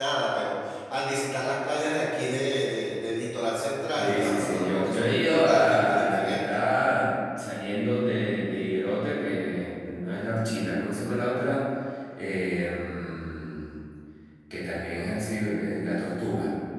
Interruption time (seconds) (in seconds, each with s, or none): 4.0 s